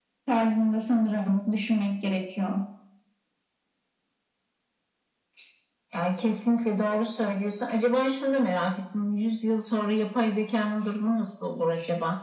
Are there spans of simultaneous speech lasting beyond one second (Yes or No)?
No